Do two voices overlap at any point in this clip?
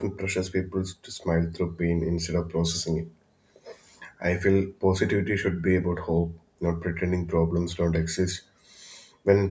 No

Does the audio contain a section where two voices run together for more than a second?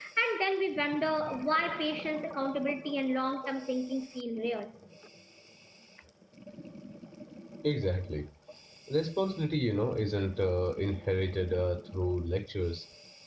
No

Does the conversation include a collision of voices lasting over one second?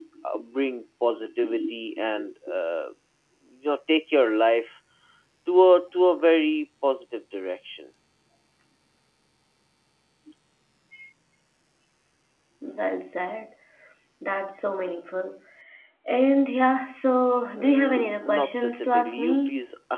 Yes, from 17.6 s

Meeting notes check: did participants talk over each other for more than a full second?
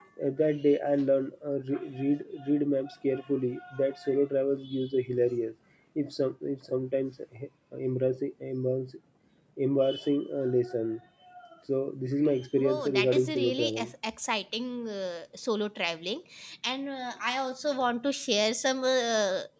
Yes, from 12.6 s

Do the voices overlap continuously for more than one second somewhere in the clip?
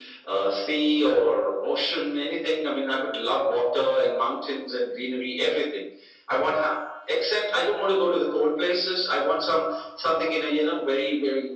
No

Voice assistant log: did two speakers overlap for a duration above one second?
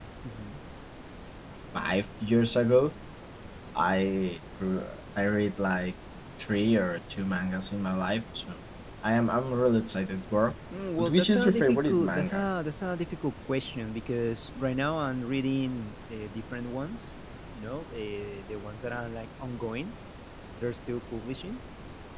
Yes, from 11.0 s

